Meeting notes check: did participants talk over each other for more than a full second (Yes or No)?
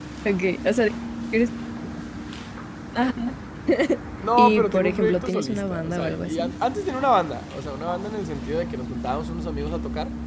Yes